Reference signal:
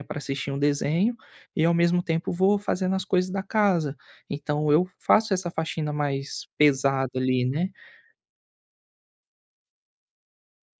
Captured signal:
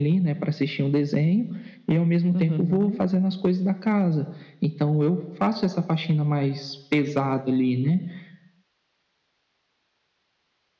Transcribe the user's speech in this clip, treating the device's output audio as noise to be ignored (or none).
Uhum,